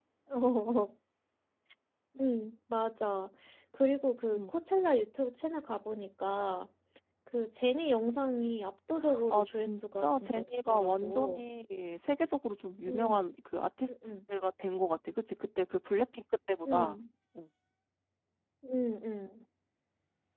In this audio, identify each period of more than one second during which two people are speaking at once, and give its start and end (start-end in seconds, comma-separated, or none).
9.0-11.4